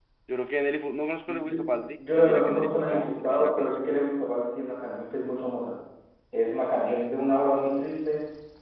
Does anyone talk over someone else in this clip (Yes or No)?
Yes